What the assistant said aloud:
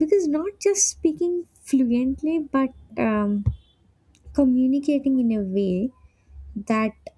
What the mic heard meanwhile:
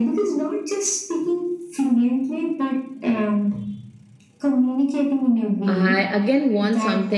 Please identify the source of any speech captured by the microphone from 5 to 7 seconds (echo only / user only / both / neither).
both